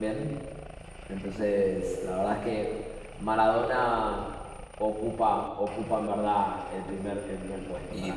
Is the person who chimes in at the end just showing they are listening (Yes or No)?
No